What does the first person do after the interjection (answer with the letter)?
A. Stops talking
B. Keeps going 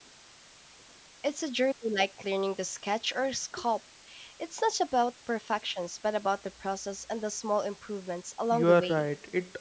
A